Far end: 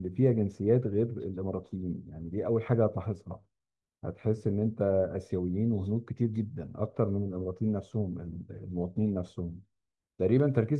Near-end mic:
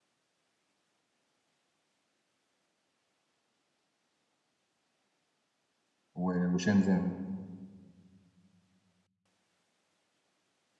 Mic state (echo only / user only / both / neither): user only